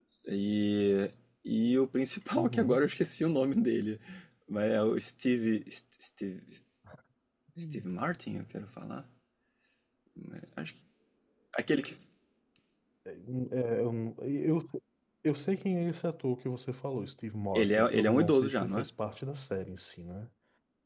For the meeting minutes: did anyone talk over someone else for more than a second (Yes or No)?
Yes